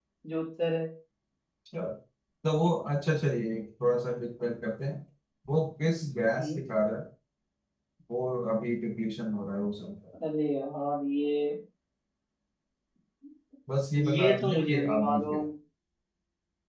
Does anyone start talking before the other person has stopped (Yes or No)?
Yes